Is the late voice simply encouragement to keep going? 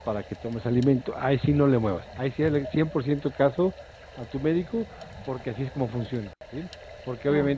Yes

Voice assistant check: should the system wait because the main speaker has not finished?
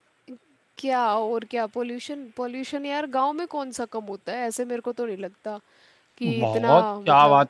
No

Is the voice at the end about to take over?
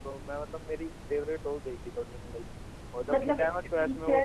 Yes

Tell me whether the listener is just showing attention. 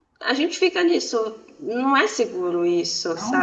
No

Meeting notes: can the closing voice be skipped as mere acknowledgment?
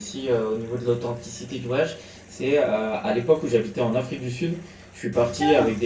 Yes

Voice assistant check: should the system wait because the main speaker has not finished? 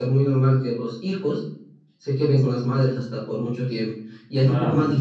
Yes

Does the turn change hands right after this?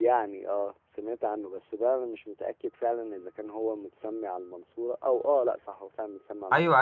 Yes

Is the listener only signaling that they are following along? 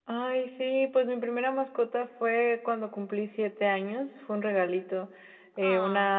Yes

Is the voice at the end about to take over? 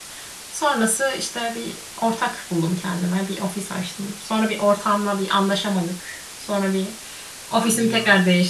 No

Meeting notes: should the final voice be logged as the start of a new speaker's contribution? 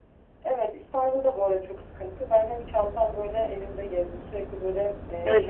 Yes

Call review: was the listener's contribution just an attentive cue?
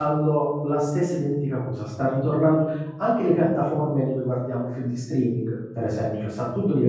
Yes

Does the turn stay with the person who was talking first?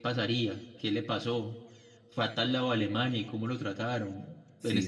Yes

